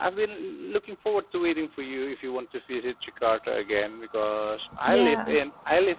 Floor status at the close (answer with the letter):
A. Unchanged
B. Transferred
A